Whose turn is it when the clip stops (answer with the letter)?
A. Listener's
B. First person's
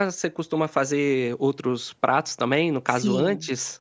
A